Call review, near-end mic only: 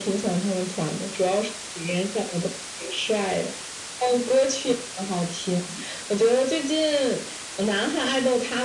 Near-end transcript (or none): none